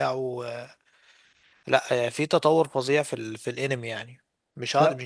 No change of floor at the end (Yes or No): Yes